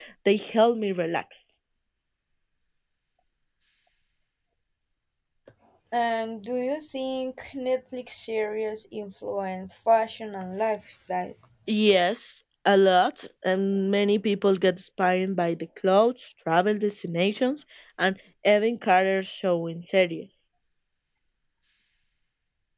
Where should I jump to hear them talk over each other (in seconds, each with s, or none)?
none